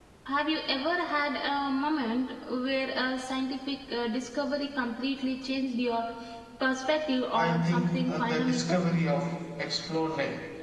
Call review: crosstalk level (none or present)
present